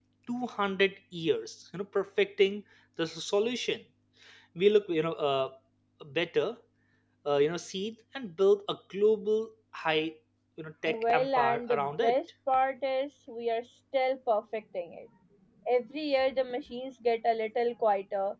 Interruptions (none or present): present